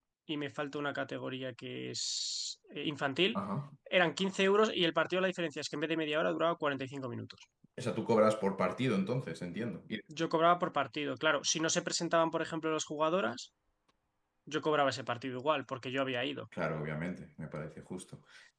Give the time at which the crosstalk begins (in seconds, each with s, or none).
none